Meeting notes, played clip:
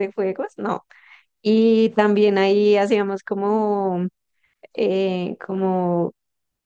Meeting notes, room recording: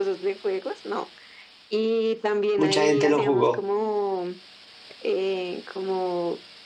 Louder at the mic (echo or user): user